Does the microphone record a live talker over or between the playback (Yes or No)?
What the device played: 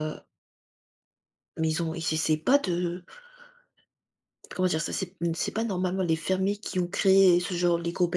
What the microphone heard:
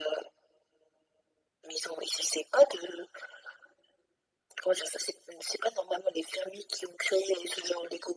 No